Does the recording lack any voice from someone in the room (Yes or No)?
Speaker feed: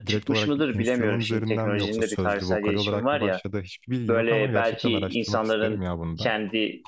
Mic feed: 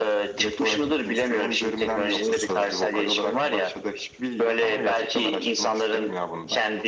Yes